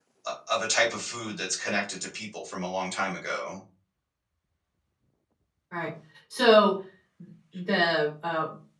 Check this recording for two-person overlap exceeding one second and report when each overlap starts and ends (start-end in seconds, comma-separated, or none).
none